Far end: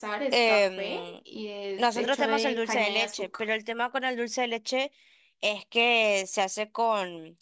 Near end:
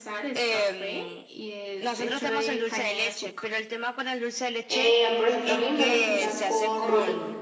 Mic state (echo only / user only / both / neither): both